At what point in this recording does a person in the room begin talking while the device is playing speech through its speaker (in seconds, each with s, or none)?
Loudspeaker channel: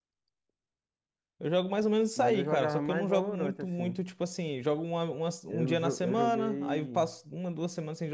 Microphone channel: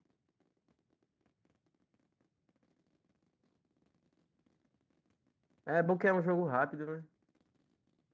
5.7 s